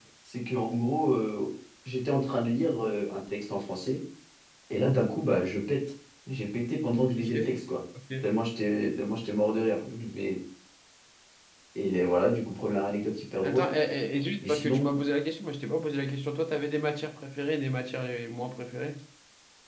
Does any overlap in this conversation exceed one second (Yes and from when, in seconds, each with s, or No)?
No